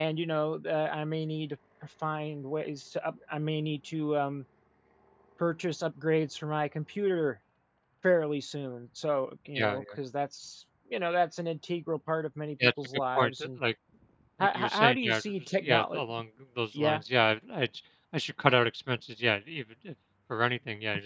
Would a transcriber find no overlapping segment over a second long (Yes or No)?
No